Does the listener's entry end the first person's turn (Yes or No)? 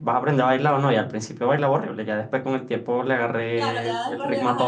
Yes